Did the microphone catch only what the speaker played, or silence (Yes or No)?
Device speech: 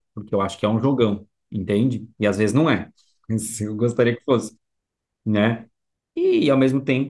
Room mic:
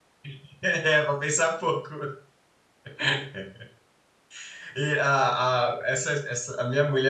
No